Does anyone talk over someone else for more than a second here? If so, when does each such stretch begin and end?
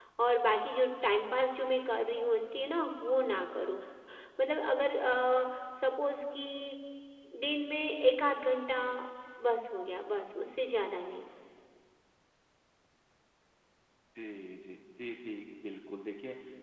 none

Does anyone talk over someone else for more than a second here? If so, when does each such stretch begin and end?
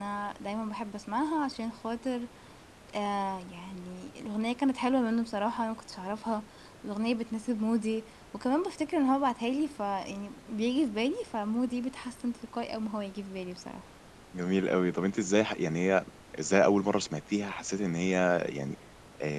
none

